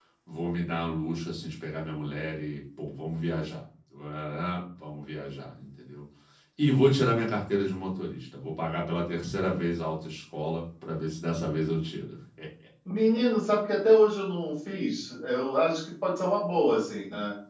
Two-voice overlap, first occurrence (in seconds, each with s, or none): none